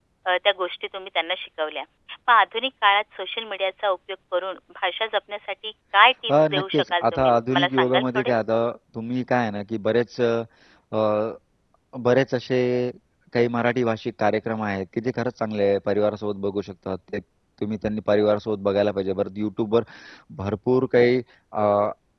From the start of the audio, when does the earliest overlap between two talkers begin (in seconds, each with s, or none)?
6.3 s